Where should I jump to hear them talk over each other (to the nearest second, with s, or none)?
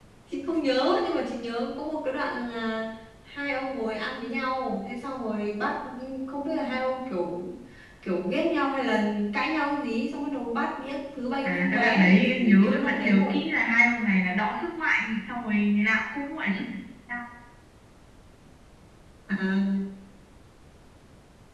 11 s